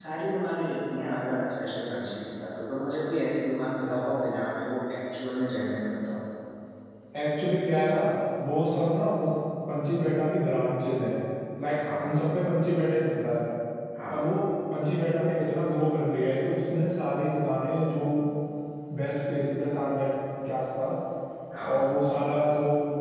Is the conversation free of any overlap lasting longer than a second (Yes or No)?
Yes